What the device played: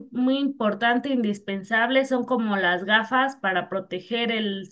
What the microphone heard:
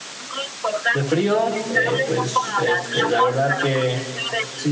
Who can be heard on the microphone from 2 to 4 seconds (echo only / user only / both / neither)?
both